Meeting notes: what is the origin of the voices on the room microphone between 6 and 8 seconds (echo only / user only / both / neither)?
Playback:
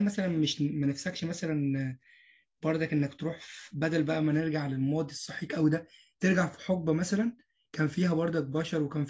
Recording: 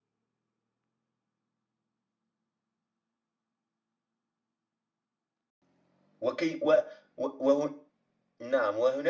user only